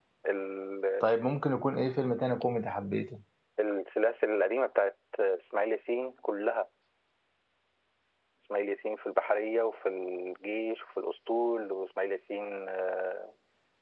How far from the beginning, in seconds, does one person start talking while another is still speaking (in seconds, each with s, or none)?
none